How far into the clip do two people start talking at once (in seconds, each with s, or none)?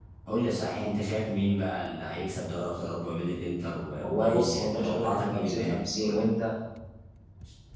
4.0 s